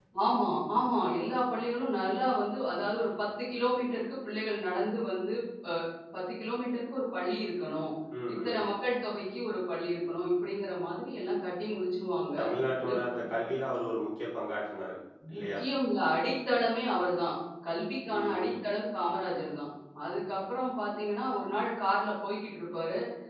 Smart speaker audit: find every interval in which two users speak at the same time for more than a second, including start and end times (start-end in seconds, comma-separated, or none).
none